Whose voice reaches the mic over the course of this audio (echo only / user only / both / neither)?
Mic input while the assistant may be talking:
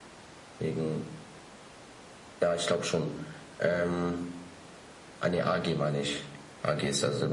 echo only